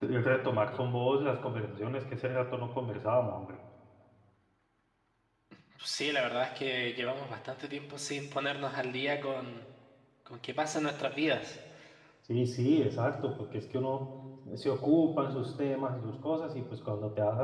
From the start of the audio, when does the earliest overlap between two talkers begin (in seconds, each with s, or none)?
none